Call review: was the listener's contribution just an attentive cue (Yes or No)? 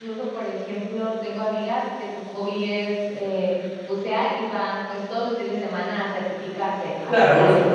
No